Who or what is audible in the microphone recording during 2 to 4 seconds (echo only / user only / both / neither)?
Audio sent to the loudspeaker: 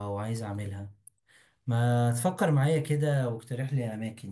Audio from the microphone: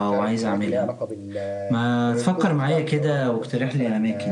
both